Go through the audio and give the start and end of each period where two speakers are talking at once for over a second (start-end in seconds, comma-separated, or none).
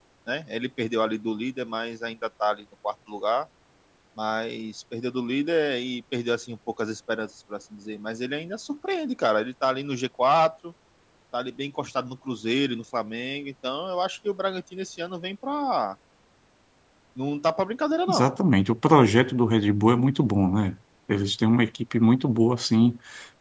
none